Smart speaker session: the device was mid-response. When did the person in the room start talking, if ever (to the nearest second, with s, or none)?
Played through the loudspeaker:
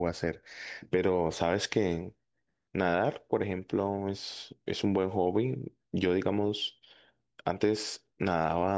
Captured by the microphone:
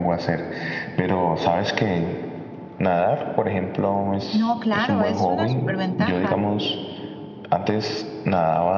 4 s